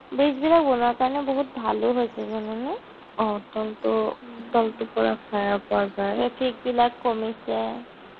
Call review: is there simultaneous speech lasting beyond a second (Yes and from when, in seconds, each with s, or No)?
No